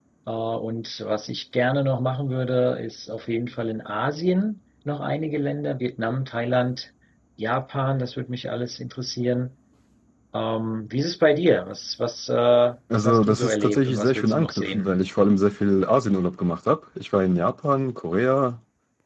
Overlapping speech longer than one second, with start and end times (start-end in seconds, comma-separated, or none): 12.9-14.9